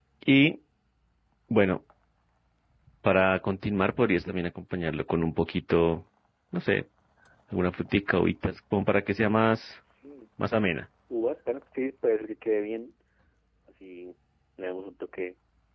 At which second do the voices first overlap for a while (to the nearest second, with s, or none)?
none